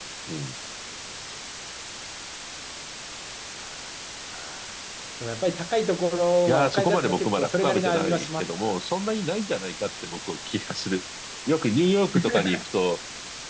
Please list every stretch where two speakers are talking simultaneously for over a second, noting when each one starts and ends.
6.5-8.7

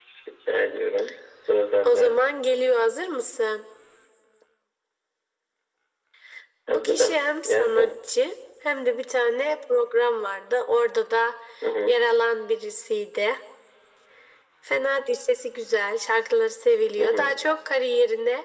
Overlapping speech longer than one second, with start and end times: 6.7-7.9

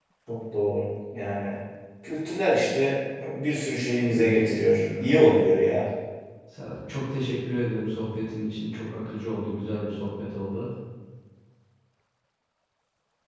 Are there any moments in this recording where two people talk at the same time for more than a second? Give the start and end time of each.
4.1-5.5

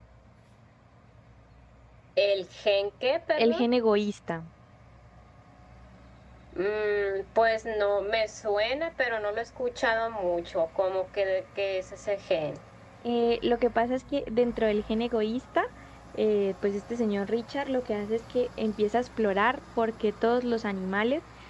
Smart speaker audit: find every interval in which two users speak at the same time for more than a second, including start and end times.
none

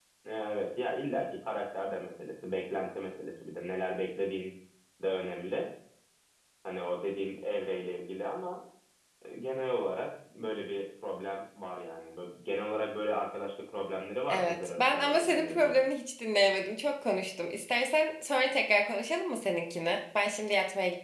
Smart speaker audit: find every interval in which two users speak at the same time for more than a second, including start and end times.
14.3-15.7

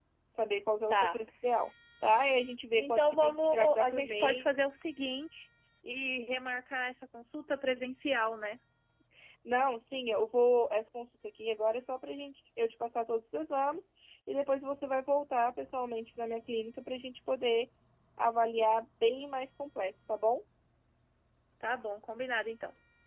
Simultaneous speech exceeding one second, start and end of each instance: 2.8-4.5

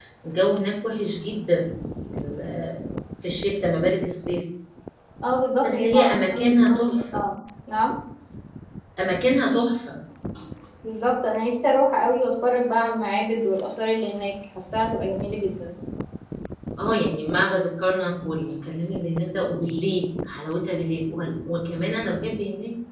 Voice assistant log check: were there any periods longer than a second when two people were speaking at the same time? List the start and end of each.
5.6-7.2

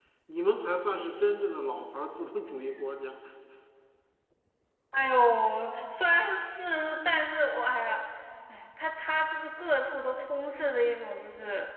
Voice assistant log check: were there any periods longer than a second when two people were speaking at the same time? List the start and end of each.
none

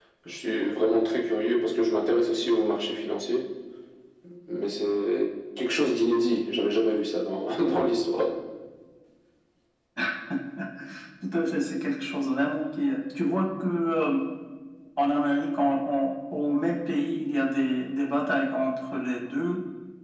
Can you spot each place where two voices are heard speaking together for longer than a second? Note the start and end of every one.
none

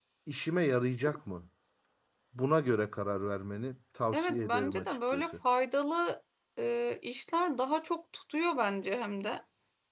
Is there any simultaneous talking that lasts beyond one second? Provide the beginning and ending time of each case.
4.1-5.3

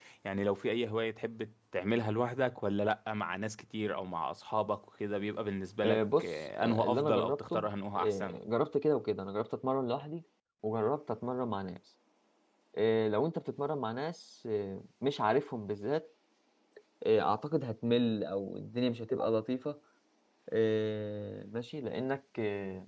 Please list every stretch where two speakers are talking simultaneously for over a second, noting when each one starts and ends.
5.8-8.4

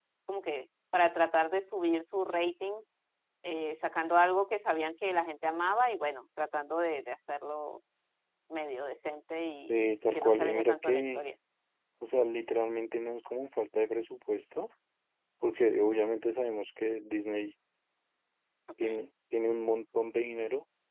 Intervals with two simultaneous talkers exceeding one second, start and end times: 9.7-11.2

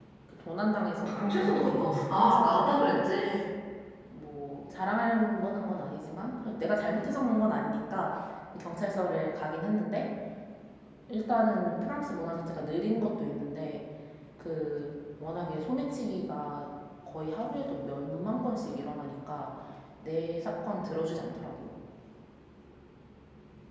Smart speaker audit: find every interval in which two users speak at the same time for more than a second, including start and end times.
1.0-2.7

